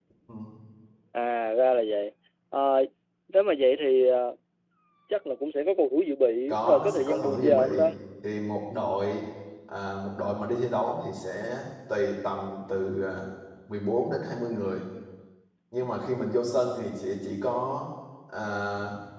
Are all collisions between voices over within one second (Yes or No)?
No